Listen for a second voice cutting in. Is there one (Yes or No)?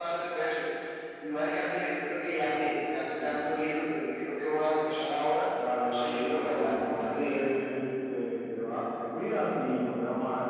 Yes